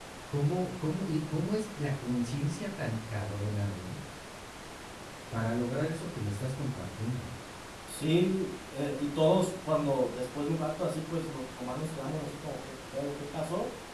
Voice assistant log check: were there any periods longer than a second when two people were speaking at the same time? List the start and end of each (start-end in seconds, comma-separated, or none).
none